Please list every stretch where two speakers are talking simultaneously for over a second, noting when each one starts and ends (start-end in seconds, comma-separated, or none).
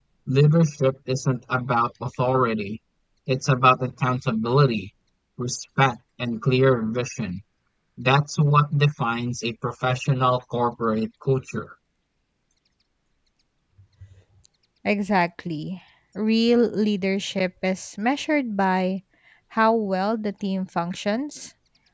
none